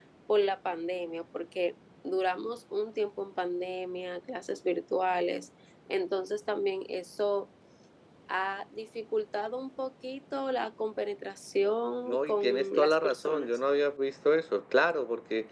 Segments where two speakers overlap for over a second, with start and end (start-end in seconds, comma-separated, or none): 12.1-13.5